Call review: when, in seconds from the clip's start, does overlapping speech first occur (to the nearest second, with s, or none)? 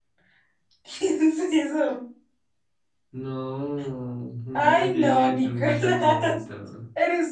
5 s